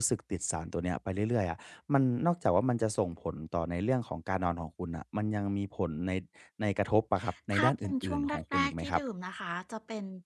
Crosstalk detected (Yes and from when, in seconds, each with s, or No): Yes, from 7.5 s